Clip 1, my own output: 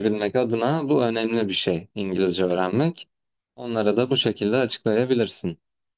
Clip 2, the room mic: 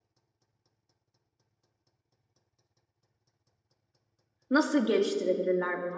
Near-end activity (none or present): present